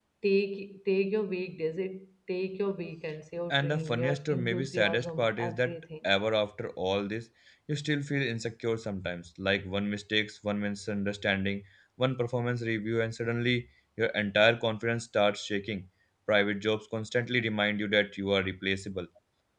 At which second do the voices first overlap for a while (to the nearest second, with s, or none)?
4 s